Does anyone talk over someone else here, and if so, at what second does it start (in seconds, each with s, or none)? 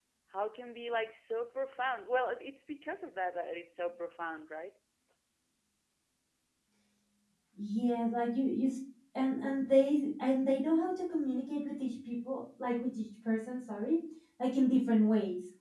none